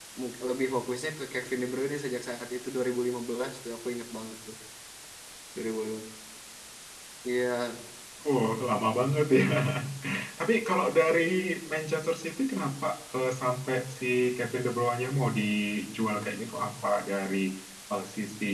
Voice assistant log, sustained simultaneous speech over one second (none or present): none